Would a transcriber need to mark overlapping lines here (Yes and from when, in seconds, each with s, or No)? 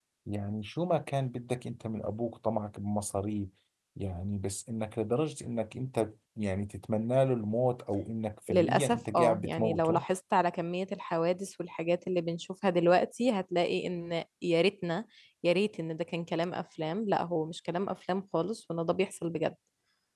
Yes, from 8.5 s